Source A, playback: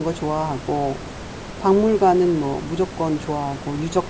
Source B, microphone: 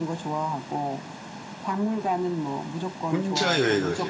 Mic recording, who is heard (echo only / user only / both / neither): both